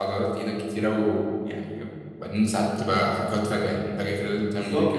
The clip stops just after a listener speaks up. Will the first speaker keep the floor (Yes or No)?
No